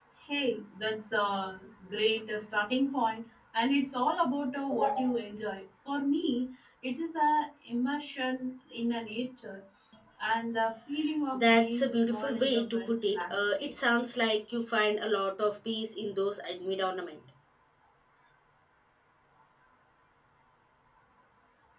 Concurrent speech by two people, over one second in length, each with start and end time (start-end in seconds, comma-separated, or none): 11.3-13.7